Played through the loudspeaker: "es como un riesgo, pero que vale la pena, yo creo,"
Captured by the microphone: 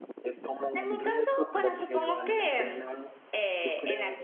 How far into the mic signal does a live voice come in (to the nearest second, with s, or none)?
1 s